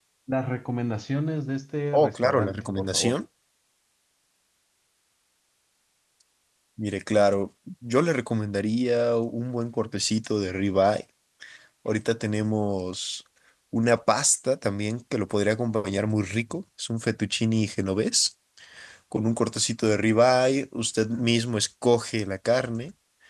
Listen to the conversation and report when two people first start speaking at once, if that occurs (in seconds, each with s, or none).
1.9 s